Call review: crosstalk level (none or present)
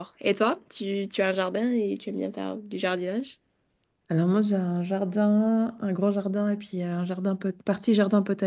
none